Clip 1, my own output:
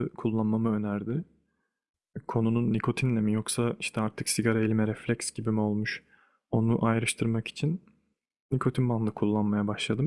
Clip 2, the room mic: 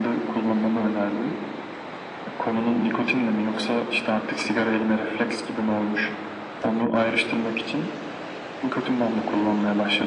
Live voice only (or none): none